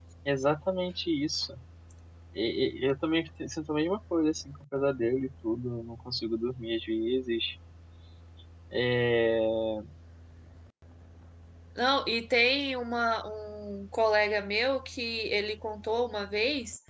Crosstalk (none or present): none